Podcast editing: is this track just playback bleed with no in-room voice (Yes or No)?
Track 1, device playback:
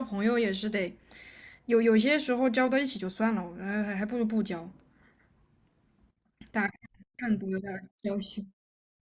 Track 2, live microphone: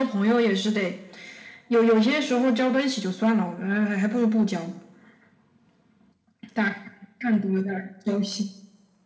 Yes